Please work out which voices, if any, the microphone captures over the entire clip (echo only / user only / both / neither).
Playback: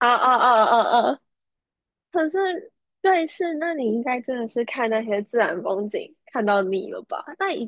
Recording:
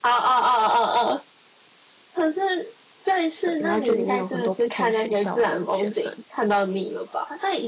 both